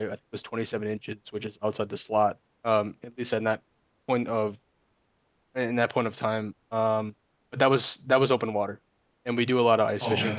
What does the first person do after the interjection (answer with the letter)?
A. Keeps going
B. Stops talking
A